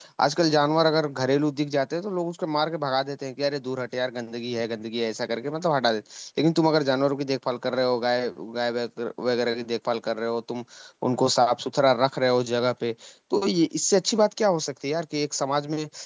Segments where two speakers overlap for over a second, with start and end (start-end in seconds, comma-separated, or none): none